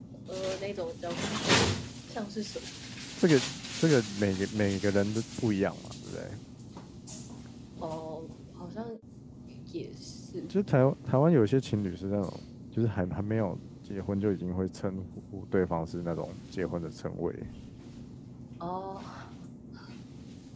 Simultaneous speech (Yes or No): No